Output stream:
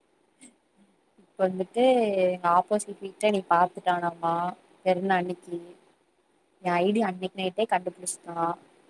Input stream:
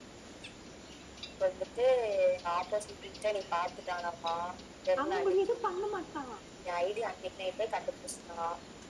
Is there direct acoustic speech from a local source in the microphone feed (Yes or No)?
Yes